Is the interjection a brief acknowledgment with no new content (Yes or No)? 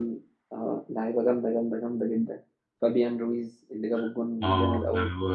No